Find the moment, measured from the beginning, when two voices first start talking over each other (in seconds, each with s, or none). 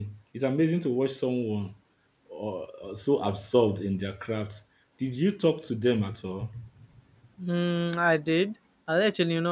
none